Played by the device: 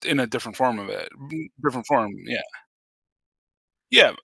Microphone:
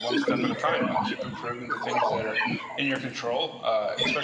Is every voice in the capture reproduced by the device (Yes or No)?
No